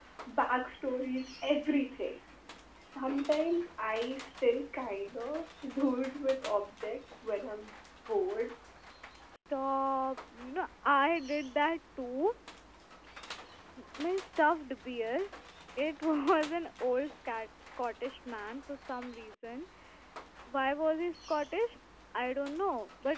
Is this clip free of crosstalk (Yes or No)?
Yes